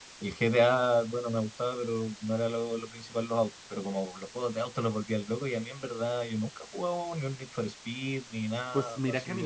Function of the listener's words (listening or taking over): taking over